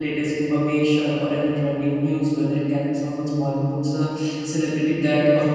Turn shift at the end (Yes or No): No